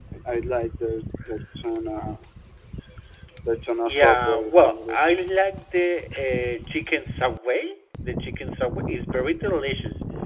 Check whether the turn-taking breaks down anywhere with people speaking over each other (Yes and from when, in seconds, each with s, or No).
Yes, from 3.9 s